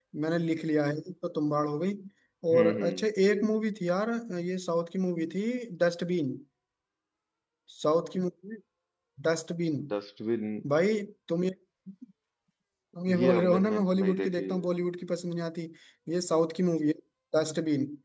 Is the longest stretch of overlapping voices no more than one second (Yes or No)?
No